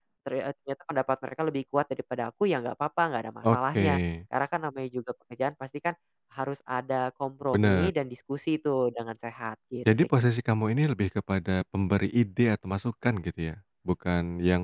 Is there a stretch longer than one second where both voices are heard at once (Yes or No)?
No